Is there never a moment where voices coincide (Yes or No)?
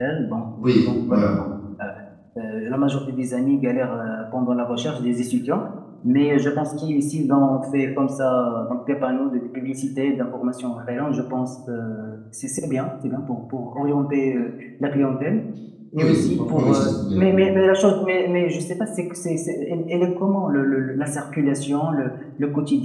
No